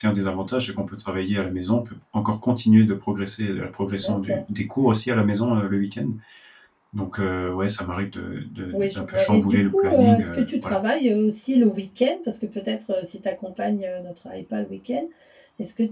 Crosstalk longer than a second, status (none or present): present